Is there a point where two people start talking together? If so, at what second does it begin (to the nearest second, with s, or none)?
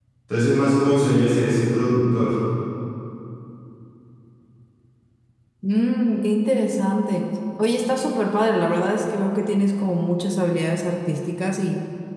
none